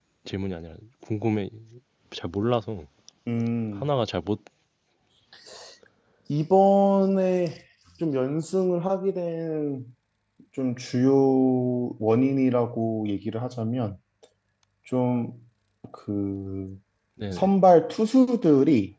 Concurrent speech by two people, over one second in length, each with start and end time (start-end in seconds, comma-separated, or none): none